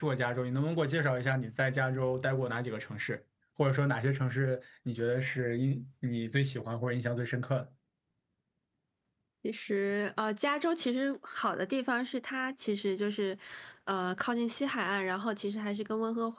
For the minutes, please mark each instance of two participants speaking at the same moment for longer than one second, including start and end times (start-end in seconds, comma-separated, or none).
none